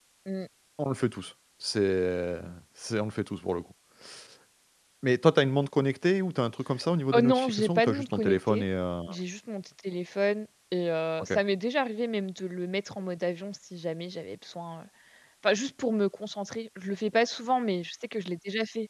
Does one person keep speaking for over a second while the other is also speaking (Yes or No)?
Yes